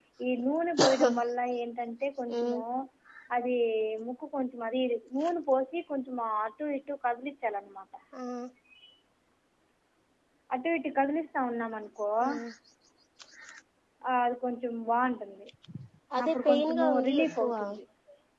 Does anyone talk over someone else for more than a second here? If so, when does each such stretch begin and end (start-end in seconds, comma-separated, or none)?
16.2-17.5